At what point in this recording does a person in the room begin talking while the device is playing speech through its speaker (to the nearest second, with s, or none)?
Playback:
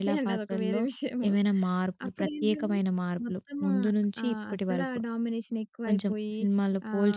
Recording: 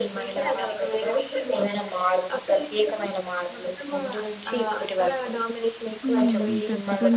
6 s